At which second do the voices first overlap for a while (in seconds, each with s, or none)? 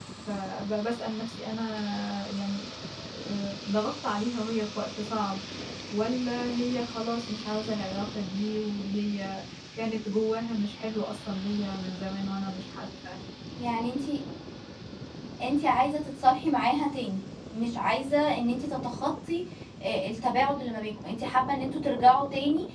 none